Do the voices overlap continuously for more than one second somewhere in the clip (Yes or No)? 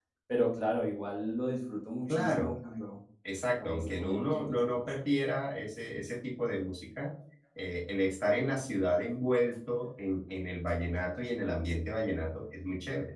Yes